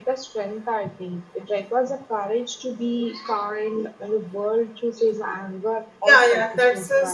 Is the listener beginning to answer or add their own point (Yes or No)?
Yes